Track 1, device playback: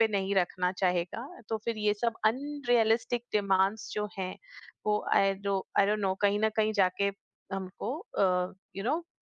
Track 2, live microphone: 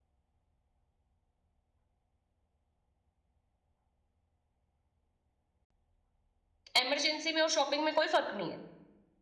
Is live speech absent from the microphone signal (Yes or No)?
No